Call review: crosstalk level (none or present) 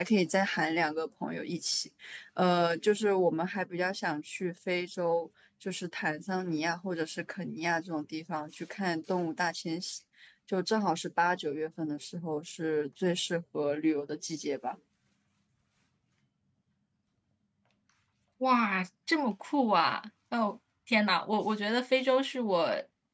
none